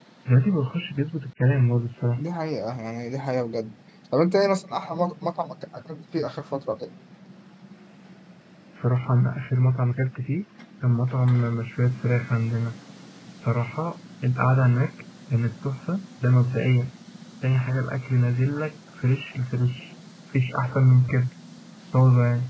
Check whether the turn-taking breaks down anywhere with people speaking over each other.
No

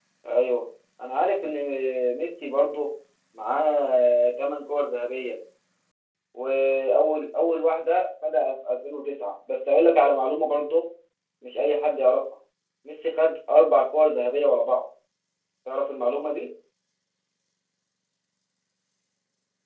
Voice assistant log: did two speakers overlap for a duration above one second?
No

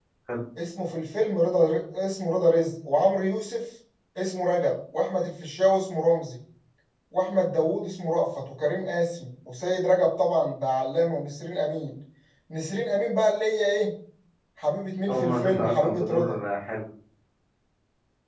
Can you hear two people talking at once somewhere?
Yes, from 15.1 s

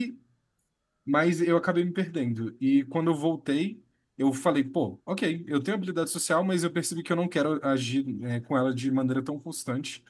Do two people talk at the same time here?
No

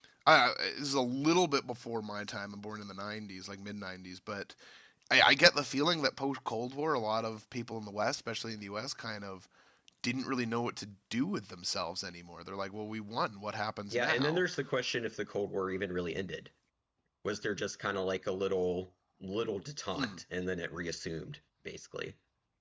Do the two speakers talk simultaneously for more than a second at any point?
No

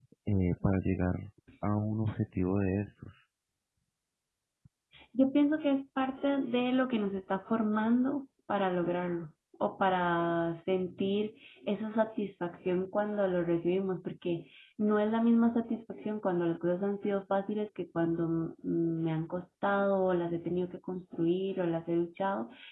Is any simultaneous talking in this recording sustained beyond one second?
No

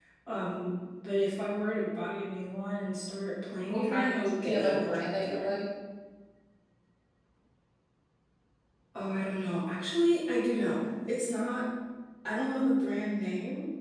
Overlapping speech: Yes, from 3.7 s

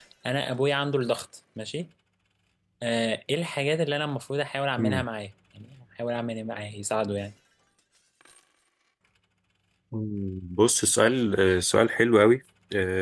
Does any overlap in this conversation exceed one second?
No

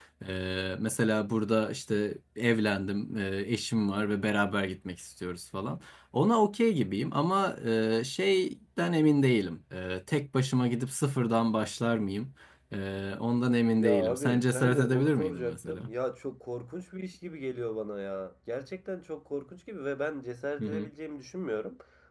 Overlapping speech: Yes, from 13.8 s

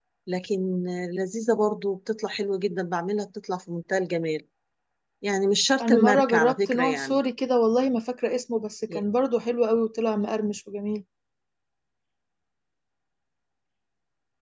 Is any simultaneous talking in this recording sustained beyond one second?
Yes, from 5.8 s

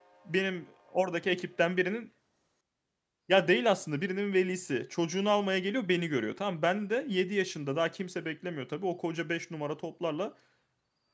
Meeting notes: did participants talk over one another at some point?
No

